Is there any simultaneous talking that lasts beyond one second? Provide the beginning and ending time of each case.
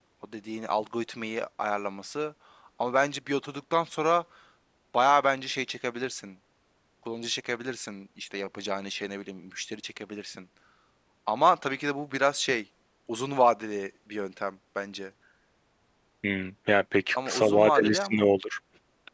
17.1-18.3

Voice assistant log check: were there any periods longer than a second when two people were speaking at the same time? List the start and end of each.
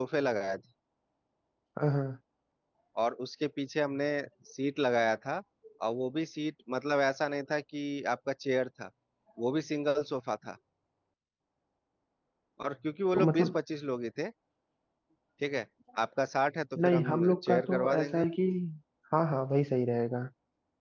16.8-18.2

